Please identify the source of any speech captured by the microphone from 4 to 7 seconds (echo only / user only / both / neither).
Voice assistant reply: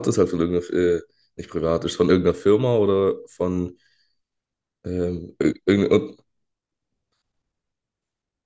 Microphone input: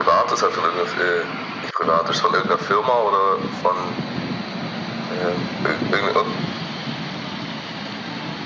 echo only